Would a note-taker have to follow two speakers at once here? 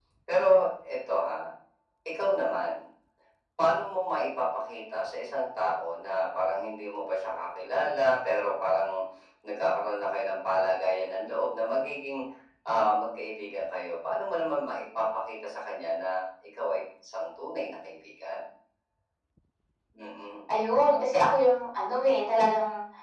No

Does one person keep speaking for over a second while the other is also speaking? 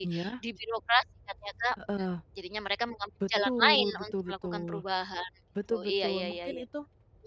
Yes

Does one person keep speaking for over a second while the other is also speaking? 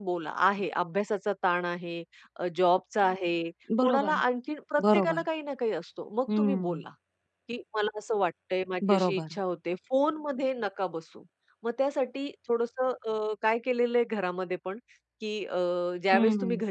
No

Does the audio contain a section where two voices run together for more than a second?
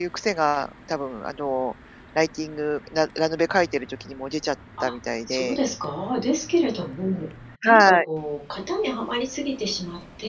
No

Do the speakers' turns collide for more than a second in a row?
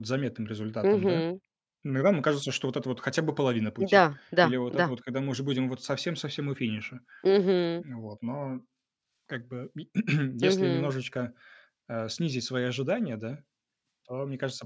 No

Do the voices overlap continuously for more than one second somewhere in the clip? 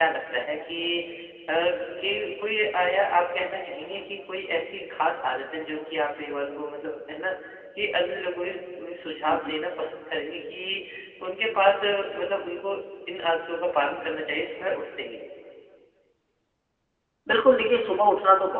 No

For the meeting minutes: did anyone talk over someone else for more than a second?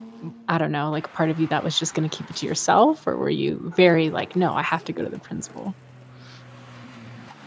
No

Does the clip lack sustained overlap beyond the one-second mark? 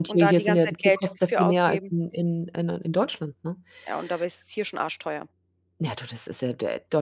No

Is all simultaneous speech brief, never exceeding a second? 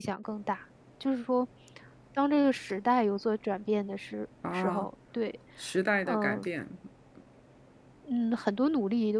Yes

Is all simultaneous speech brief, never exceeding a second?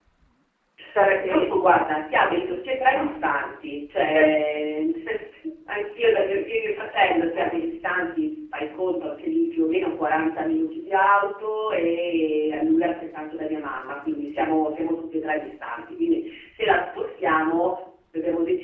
No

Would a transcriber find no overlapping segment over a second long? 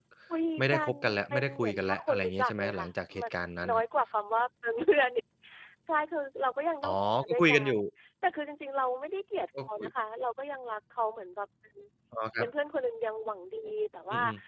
No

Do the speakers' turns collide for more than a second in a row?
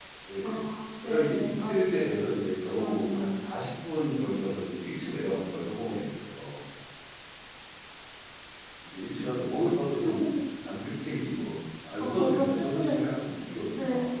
Yes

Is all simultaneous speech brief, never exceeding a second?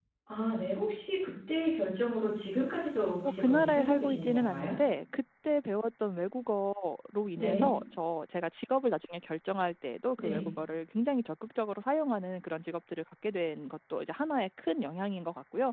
No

